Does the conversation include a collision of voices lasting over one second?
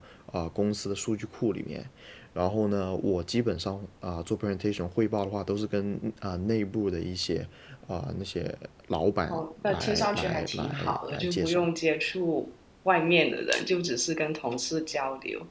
Yes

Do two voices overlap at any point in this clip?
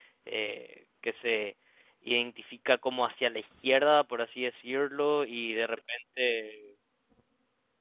No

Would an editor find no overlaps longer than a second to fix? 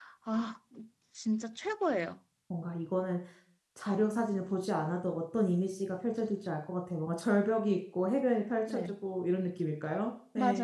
Yes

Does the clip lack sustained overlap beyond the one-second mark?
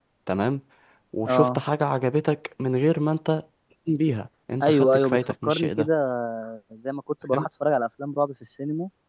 No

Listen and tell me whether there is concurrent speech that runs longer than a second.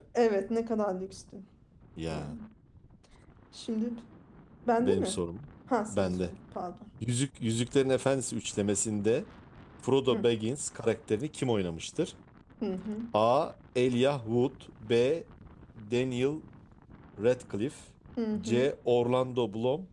No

